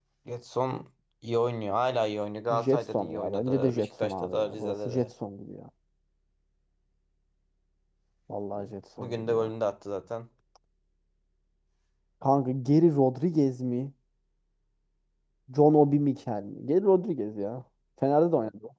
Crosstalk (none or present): present